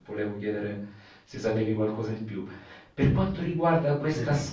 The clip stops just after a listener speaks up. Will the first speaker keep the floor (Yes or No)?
Yes